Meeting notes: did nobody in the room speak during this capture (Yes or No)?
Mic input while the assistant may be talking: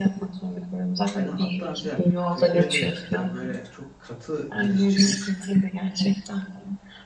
No